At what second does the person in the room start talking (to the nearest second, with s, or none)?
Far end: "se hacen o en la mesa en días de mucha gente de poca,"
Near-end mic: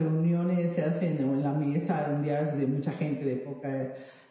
none